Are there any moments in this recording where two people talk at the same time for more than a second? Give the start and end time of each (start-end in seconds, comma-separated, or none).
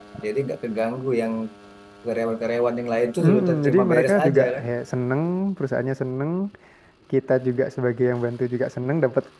3.2-4.6